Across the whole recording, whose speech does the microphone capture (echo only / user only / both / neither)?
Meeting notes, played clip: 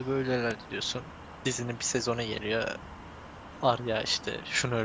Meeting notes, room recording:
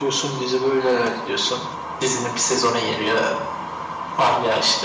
echo only